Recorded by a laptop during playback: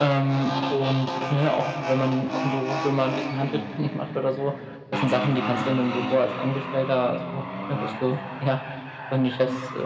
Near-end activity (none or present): none